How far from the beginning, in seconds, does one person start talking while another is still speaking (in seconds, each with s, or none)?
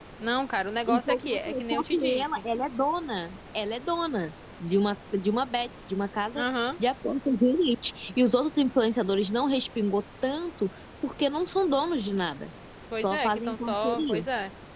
0.9 s